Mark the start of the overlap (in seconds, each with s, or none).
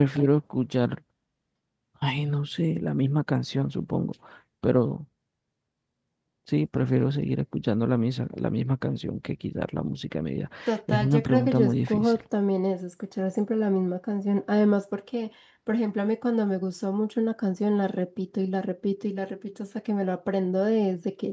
10.9 s